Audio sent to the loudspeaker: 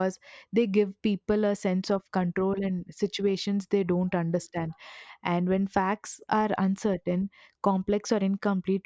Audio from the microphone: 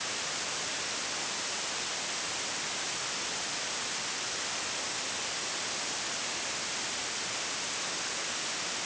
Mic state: neither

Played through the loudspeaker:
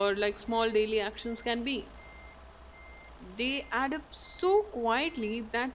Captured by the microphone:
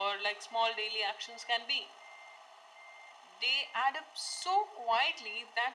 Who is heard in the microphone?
echo only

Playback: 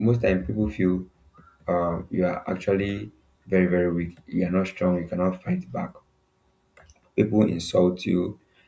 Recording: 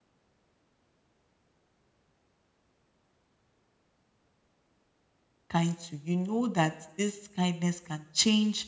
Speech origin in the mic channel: user only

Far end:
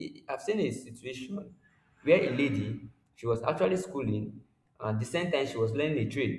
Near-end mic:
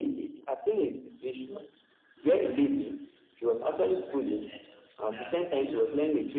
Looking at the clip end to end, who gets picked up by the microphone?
both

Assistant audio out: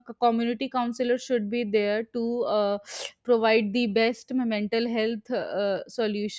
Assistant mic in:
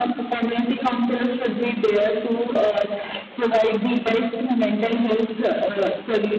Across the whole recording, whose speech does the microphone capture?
echo only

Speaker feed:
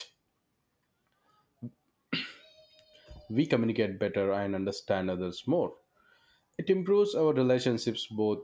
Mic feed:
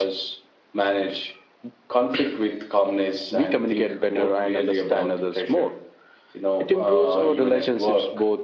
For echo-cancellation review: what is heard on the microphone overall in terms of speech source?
both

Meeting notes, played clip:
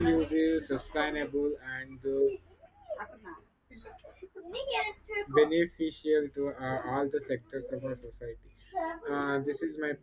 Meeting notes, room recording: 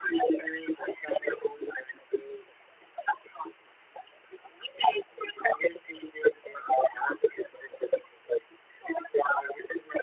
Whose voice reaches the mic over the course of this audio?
echo only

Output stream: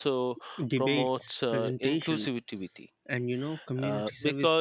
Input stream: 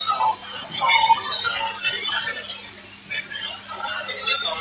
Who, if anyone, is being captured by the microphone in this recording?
echo only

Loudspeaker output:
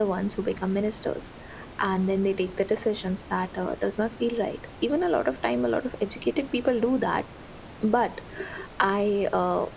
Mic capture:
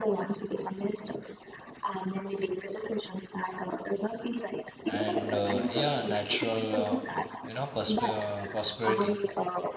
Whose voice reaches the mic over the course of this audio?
both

